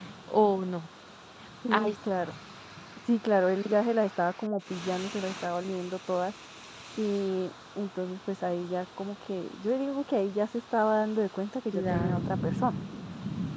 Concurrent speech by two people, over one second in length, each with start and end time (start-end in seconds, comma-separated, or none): none